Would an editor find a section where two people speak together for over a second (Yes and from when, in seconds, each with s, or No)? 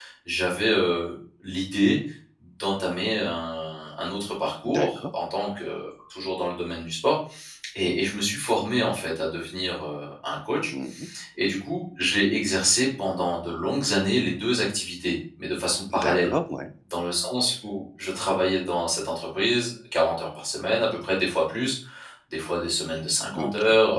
No